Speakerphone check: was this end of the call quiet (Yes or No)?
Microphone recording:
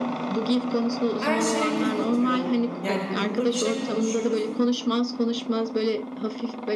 No